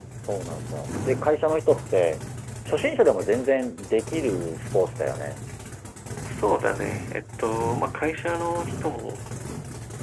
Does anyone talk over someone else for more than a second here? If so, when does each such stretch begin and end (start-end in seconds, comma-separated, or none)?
none